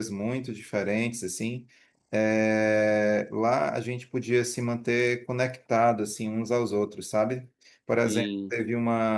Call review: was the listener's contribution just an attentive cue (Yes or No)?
Yes